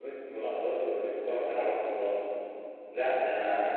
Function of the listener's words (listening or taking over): listening